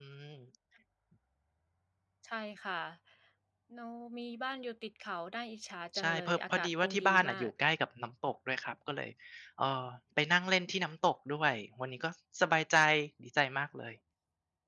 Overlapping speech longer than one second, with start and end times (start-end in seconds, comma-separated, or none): 6.0-7.5